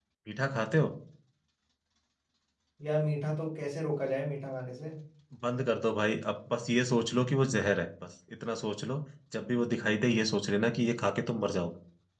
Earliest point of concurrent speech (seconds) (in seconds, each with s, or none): none